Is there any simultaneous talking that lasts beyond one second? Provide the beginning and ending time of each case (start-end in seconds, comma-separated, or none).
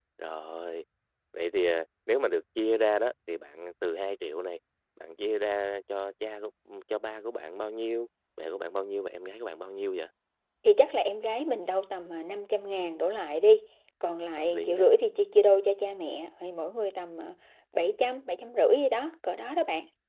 none